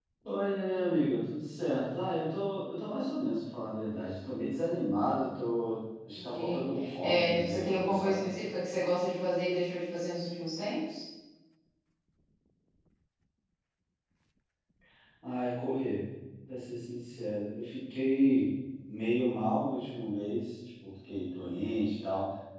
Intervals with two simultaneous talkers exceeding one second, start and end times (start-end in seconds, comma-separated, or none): 7.0-8.3